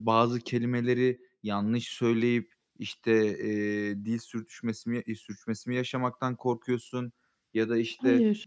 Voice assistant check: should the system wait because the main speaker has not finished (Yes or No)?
Yes